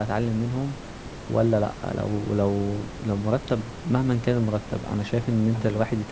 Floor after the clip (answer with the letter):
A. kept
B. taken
A